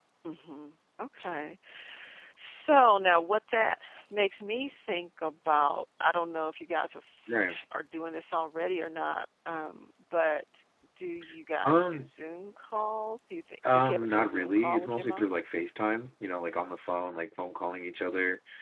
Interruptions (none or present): present